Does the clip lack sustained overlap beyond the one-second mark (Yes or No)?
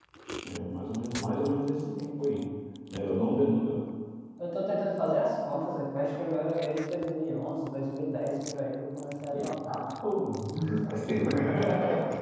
Yes